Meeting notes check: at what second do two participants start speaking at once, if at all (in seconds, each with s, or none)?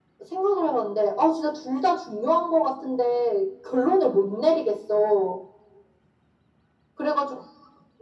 none